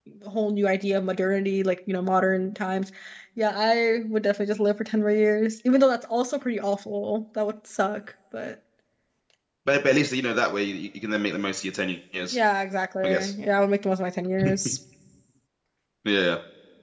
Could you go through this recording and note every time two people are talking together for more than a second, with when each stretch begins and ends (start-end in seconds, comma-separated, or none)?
none